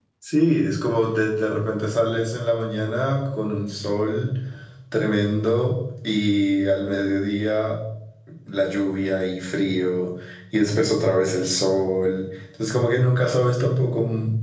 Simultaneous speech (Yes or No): No